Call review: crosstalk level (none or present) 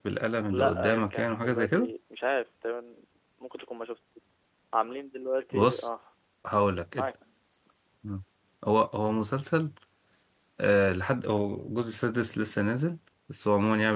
present